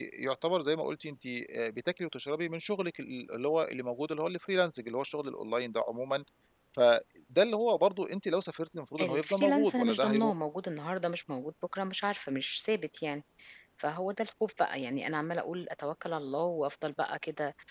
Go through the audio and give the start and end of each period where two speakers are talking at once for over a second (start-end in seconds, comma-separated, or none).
9.0-10.3